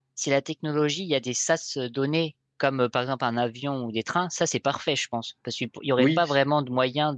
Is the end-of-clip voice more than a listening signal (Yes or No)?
No